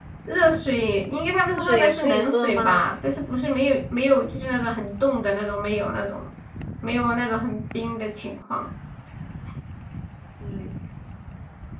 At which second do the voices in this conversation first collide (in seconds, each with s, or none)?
1.5 s